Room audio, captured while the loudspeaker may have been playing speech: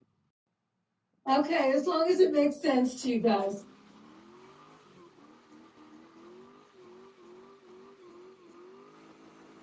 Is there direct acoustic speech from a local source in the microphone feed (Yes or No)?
Yes